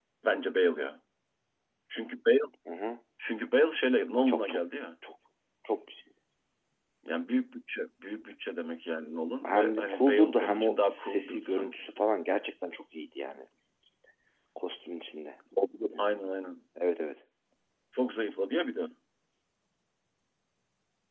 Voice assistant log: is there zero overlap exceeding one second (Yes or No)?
No